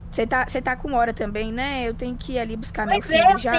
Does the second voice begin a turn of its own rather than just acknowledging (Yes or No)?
Yes